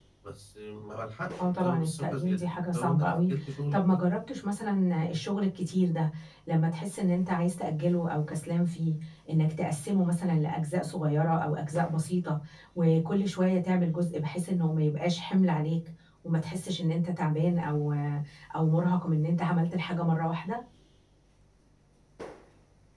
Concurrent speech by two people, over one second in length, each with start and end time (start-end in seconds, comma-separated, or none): 1.4-3.3